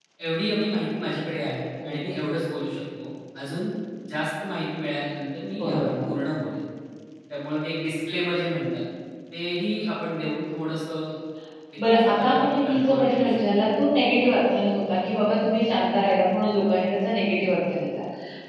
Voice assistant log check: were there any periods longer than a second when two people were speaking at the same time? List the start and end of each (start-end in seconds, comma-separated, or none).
12.1-13.4